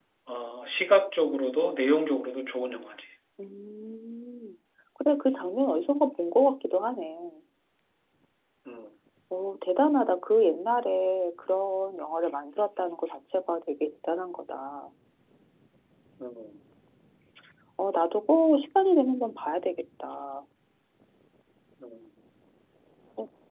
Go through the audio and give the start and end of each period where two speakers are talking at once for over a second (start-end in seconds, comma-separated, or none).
none